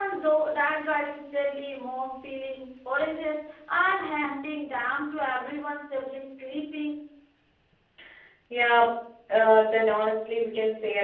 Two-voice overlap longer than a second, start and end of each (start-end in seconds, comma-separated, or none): none